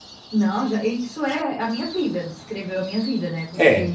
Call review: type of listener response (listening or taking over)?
listening